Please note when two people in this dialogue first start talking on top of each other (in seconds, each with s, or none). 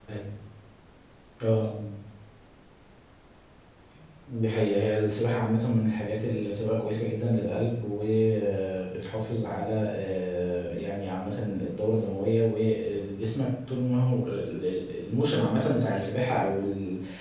none